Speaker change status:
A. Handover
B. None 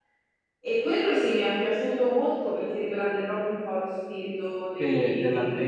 A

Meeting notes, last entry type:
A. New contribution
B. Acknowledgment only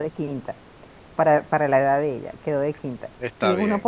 B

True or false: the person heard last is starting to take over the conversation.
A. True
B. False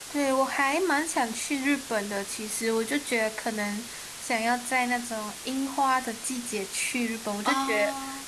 B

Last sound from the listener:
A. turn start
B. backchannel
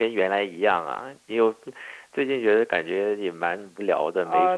A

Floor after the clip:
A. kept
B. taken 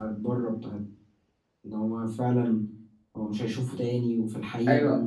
B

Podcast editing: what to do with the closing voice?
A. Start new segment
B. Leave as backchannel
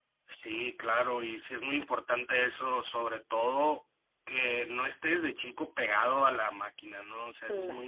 B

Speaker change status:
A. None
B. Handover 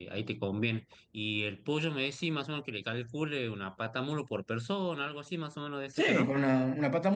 B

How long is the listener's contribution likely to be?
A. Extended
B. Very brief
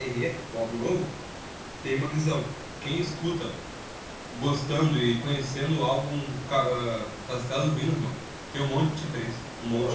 A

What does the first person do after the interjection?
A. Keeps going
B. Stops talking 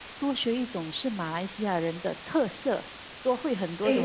B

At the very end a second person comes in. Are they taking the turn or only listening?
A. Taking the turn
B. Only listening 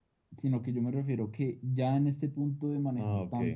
B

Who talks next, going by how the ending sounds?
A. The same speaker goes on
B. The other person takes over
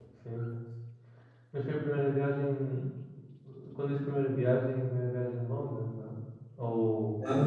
B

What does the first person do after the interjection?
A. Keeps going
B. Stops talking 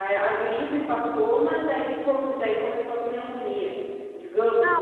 B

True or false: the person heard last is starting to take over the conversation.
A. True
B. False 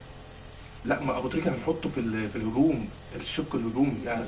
A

